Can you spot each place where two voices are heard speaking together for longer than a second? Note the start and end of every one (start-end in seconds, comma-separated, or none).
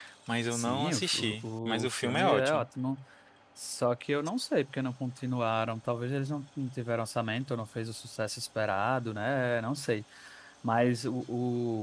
0.5-2.6